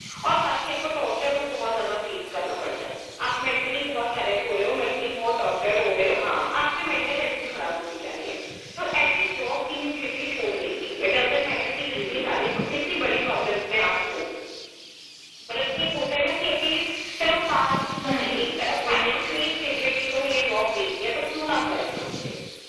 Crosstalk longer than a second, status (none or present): present